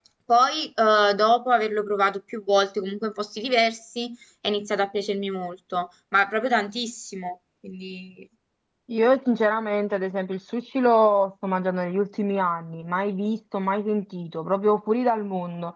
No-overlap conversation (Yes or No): Yes